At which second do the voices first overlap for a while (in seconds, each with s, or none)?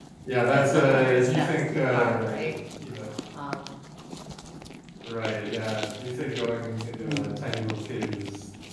0.5 s